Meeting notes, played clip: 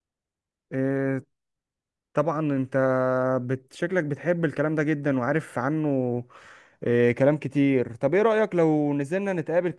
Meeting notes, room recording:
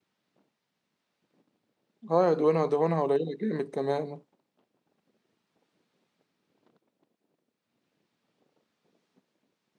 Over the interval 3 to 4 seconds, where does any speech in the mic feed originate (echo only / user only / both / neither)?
user only